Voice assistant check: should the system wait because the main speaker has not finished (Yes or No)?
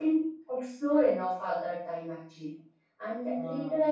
Yes